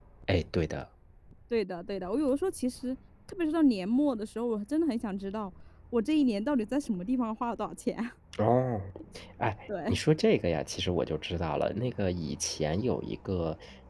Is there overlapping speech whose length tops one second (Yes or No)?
No